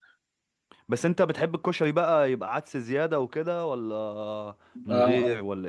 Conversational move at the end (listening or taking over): taking over